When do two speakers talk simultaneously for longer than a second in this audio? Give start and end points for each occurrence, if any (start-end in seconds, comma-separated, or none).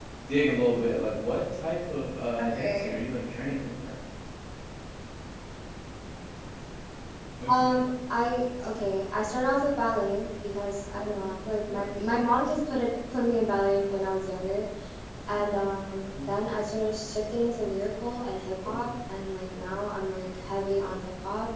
none